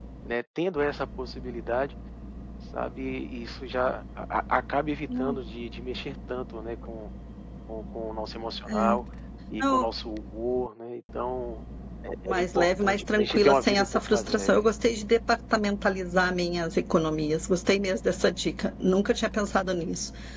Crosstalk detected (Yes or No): Yes